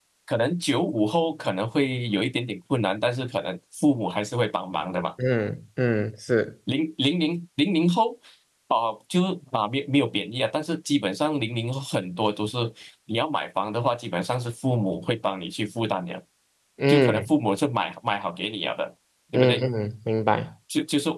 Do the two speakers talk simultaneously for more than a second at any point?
No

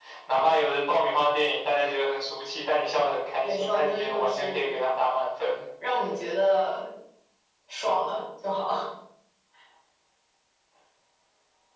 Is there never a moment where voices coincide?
No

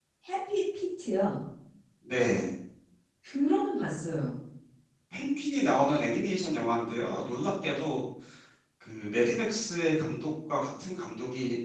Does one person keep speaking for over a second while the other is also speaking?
No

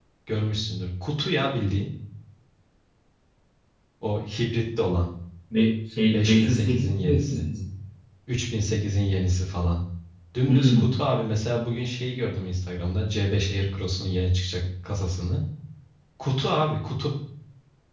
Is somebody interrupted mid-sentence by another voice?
Yes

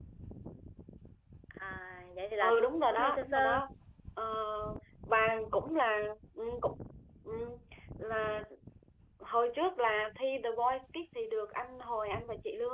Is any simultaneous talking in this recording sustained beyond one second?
Yes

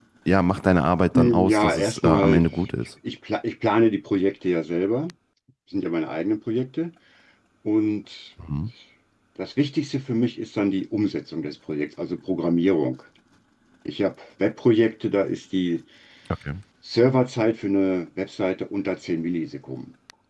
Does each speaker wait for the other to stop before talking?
No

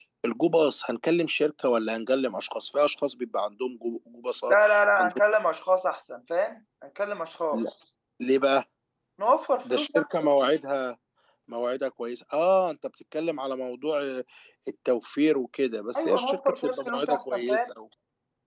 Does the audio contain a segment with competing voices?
Yes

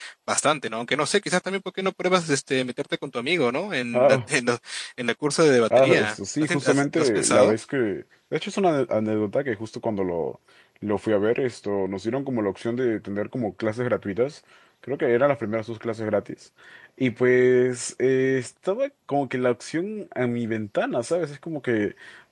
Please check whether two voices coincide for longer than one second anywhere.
Yes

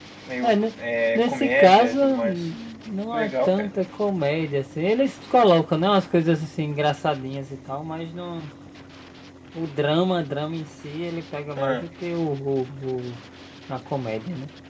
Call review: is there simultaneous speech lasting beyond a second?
Yes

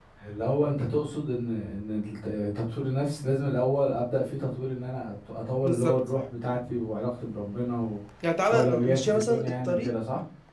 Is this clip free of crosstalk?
No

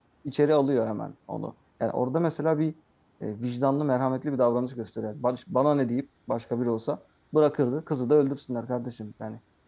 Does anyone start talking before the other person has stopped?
No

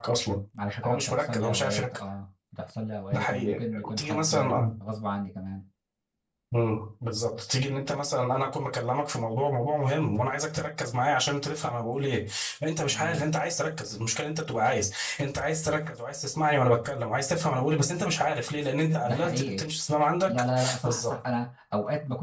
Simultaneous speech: Yes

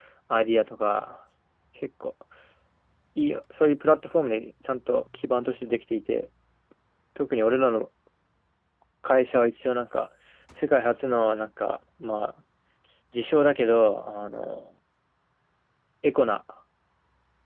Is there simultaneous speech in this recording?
No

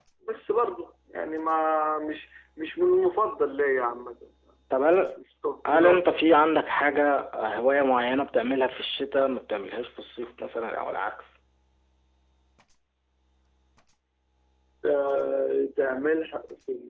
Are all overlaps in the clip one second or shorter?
Yes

